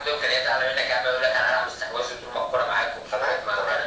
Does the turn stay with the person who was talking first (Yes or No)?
No